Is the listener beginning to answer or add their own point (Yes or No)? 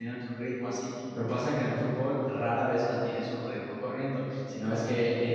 No